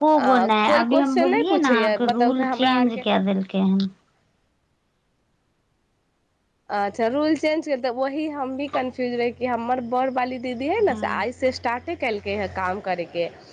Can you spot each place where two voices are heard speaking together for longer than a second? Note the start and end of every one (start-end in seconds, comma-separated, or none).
0.7-3.0